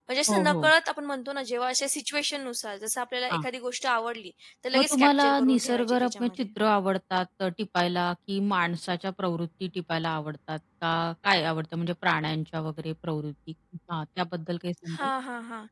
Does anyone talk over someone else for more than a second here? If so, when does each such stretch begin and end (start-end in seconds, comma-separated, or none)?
4.8-6.5